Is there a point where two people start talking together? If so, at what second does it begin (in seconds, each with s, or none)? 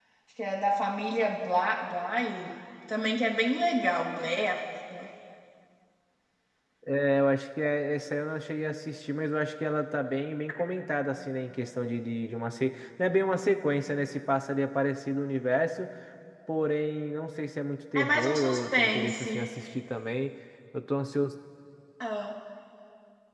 17.9 s